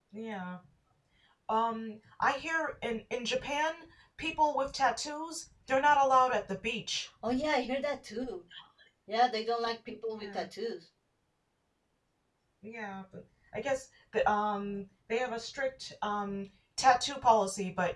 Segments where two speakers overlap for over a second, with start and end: none

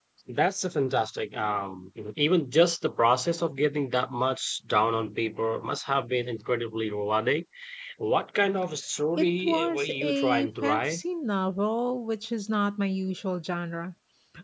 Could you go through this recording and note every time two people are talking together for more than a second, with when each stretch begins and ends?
9.2-11.0

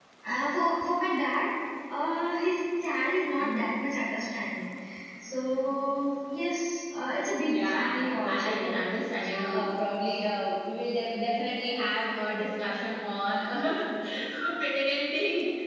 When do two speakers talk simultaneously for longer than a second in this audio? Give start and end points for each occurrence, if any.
7.5-8.7

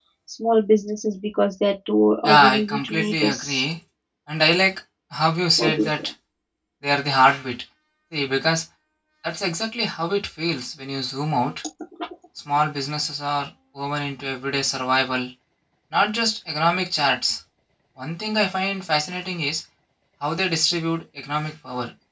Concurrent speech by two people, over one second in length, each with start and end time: 2.2-3.6

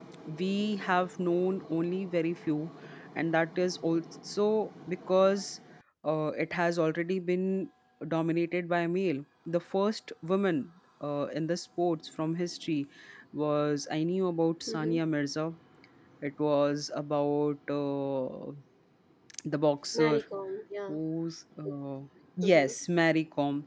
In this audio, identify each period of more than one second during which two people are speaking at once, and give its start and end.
none

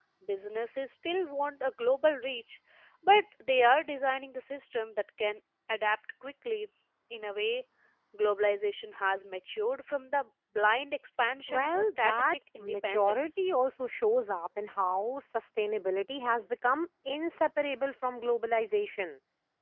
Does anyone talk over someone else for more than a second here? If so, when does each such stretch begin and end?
11.5-13.4

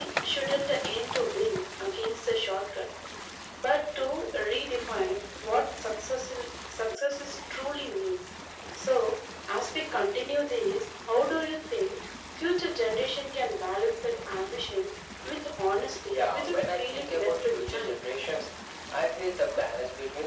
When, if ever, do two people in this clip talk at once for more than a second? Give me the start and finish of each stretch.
16.1-17.9

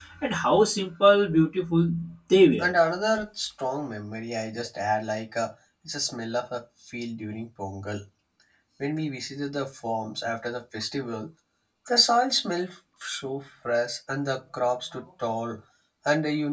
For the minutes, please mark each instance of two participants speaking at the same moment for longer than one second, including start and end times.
none

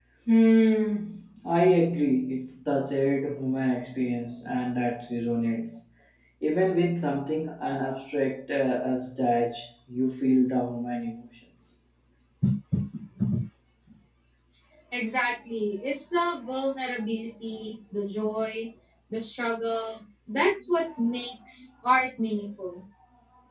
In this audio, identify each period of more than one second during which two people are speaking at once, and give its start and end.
none

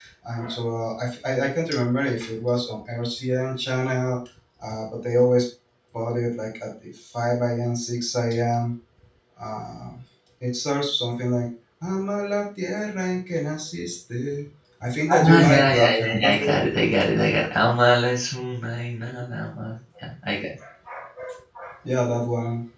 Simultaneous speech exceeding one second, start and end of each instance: 15.1-16.3

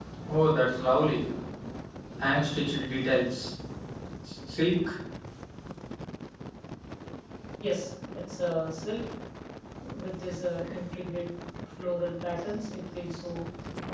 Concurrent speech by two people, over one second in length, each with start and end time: none

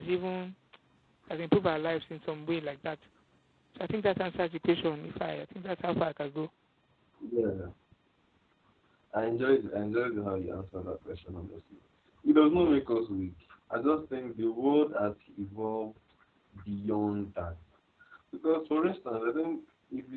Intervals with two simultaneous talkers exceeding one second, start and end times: none

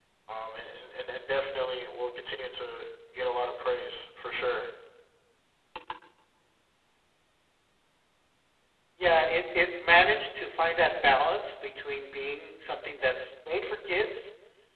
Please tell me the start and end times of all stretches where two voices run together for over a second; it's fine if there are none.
none

